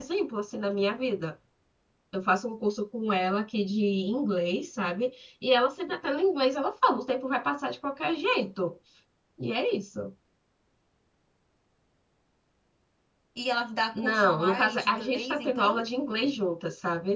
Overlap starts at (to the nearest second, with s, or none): 14 s